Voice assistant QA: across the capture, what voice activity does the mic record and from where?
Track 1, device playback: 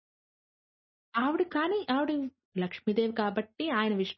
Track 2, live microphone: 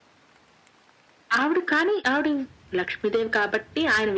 echo only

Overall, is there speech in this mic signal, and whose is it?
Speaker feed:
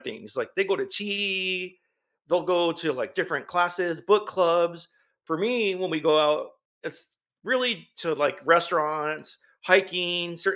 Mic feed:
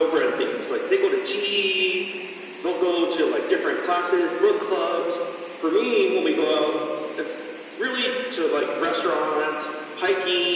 echo only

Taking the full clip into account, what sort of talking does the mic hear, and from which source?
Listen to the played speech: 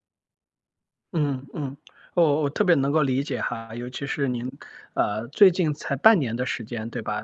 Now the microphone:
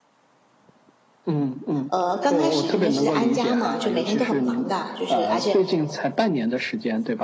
both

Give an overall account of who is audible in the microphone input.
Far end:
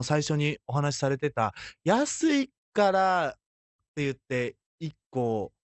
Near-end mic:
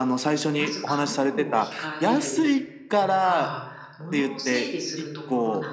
both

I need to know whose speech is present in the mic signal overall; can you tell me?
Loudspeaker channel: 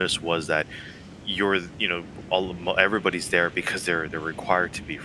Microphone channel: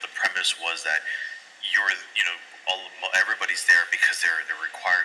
echo only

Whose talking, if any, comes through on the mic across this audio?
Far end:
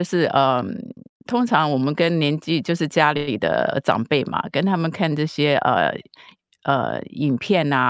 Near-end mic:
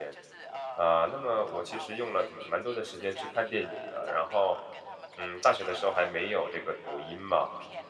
both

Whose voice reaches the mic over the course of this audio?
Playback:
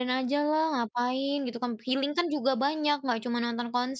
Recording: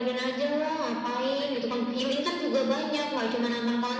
echo only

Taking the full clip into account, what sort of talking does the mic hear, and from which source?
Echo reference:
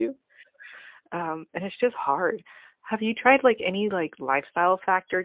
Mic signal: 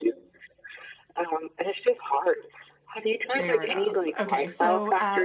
both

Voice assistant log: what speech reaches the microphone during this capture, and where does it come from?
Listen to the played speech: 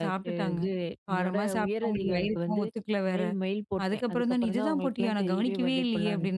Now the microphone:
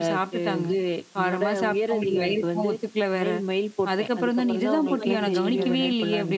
both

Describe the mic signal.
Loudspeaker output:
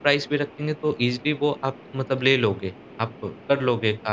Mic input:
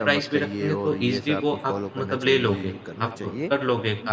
both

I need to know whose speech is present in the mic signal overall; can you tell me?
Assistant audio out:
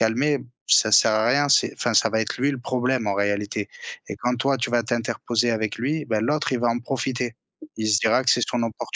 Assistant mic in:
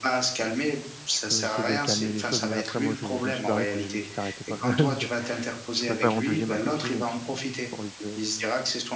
both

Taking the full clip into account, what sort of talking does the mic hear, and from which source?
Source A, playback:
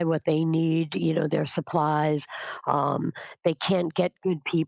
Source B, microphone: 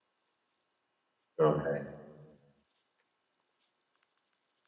user only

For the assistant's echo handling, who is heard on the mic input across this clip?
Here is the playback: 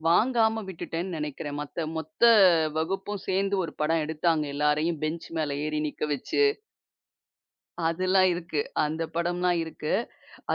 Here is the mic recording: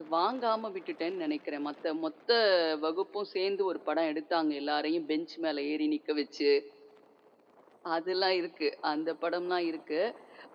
echo only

